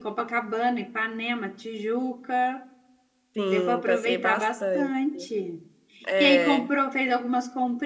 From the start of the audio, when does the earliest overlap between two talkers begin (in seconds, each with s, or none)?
3.5 s